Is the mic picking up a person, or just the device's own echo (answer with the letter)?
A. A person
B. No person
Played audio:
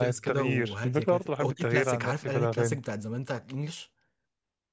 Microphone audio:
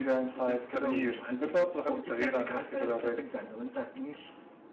B